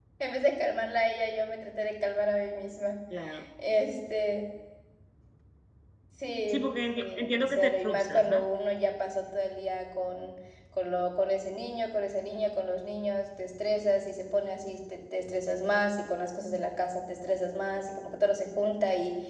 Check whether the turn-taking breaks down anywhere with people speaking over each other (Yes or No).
Yes